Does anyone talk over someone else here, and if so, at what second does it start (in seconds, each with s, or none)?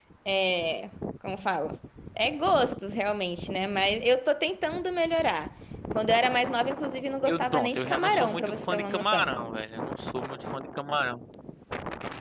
7.2 s